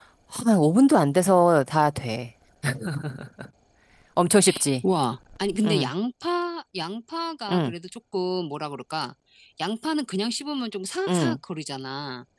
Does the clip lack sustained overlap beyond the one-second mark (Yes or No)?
Yes